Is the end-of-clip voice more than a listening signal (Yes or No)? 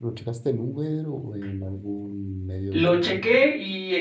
Yes